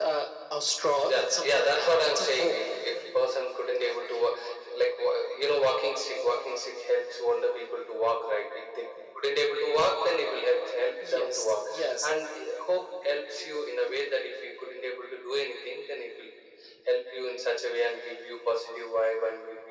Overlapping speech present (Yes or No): Yes